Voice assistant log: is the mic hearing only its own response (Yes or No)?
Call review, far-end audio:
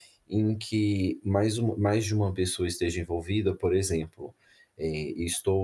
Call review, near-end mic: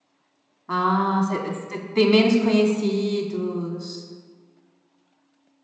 No